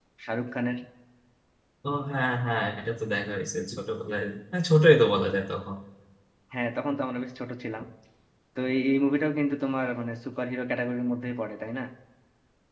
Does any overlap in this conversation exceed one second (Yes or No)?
No